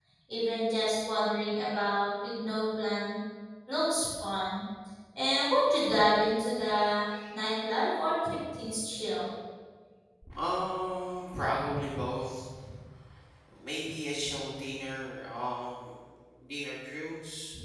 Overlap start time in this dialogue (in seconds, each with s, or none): none